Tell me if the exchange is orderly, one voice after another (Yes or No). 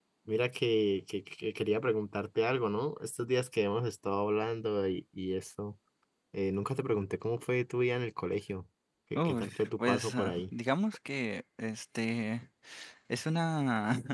No